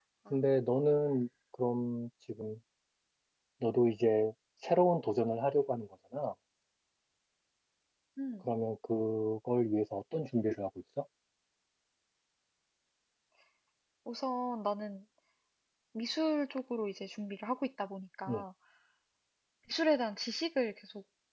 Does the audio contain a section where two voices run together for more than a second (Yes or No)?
No